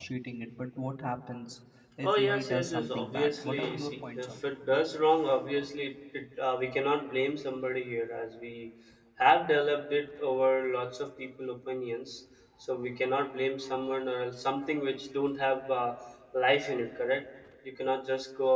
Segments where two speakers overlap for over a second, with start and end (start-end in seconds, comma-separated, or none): 2.1-4.4